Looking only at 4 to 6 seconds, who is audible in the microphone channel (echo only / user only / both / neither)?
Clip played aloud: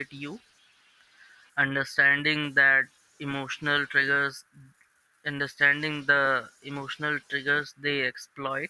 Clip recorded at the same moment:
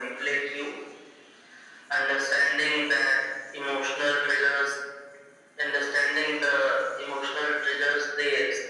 echo only